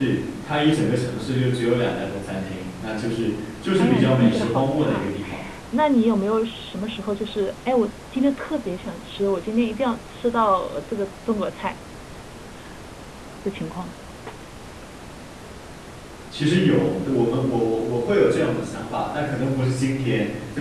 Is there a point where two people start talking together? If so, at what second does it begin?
4 s

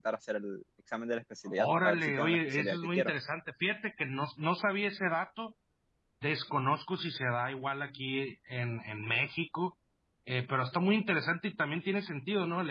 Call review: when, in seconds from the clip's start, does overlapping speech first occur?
2 s

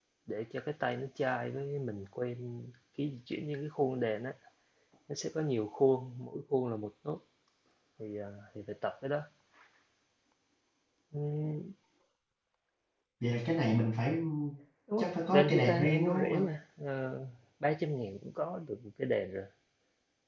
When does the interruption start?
15 s

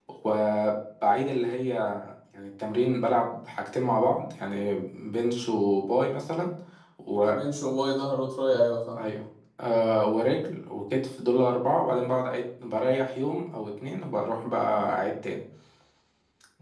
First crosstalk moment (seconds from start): none

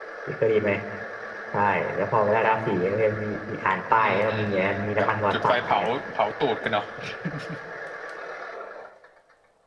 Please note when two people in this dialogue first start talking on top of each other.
4 s

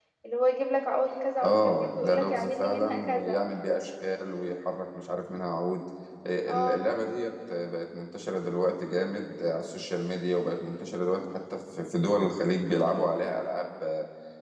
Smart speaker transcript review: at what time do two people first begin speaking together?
1 s

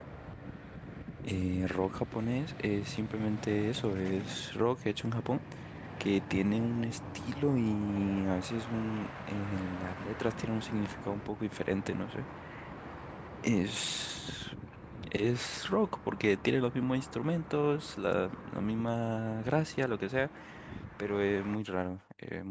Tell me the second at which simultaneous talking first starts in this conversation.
none

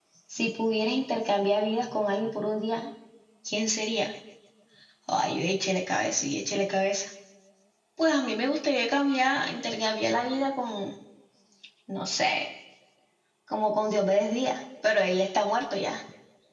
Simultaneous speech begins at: none

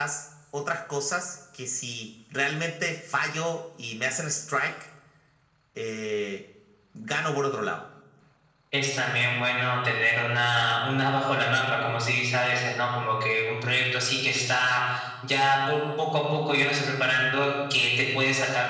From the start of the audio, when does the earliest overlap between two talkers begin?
none

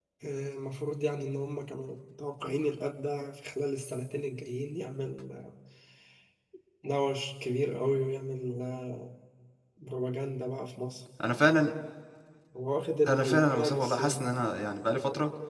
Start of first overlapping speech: 13 s

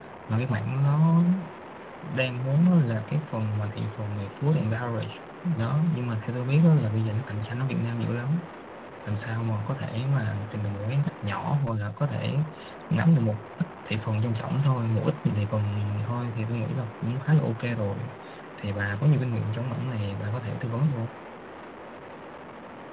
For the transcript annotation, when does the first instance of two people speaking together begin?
none

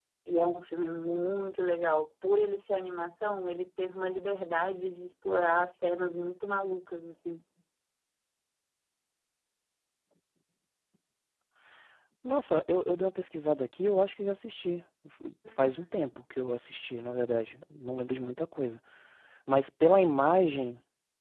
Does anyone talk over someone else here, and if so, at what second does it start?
none

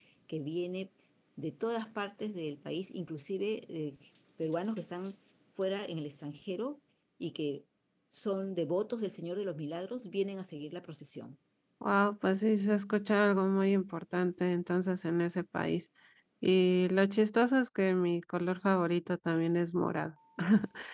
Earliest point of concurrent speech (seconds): none

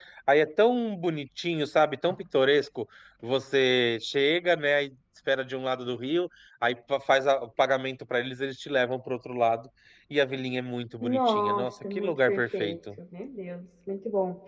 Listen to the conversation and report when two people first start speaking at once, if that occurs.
11 s

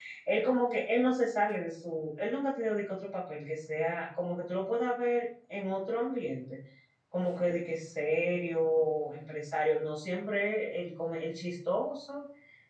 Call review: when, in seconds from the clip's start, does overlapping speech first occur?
none

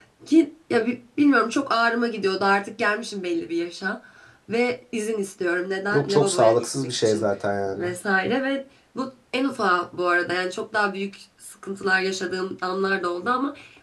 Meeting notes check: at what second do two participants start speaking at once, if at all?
6 s

